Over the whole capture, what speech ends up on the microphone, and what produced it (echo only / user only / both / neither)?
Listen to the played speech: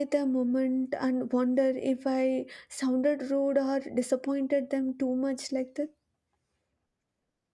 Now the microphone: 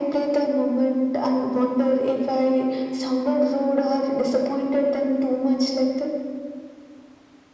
echo only